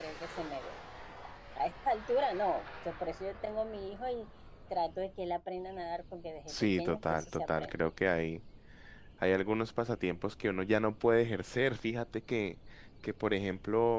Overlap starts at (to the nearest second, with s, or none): 6 s